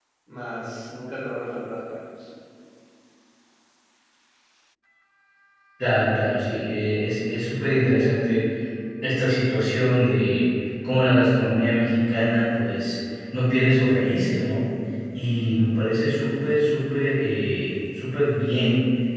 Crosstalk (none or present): none